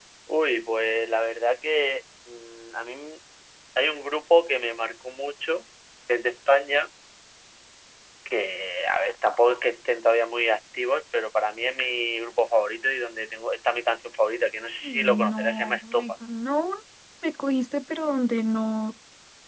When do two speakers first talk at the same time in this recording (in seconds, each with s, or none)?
14.8 s